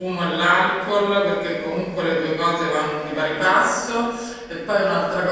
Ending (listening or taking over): listening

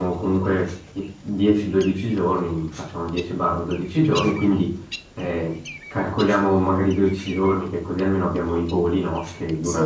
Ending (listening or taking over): listening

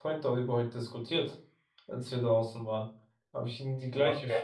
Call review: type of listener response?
listening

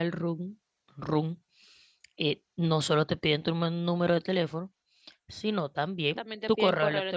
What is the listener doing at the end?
taking over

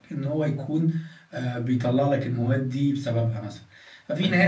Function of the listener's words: listening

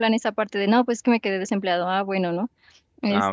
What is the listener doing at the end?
taking over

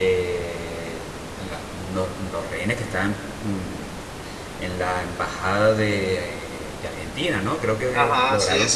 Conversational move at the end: taking over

